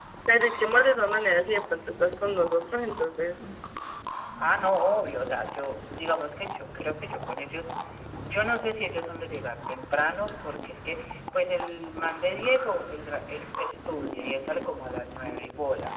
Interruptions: none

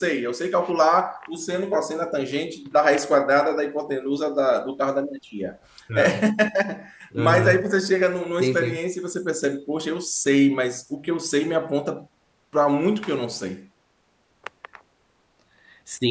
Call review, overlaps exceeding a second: none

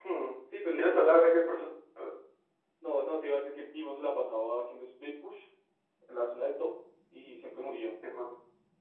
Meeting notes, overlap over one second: none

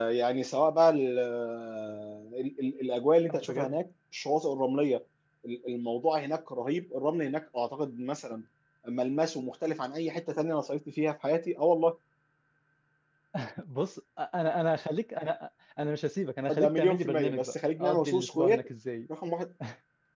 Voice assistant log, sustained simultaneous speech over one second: present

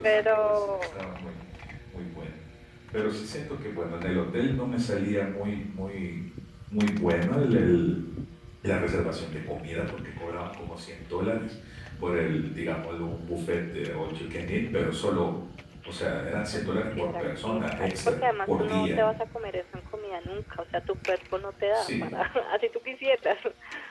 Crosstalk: present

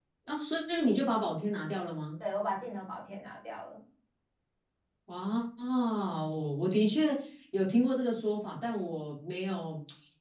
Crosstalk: none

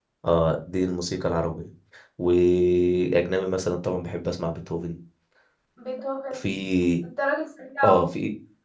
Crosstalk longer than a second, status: none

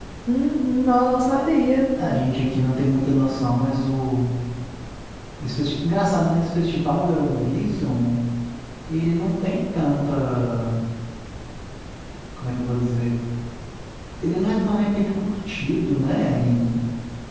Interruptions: none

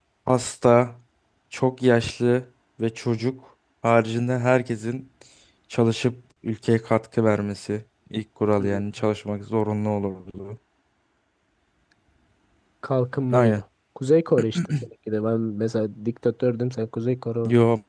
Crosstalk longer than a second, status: none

